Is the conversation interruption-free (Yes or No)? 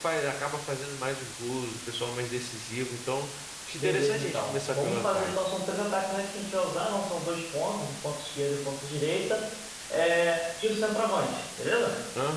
No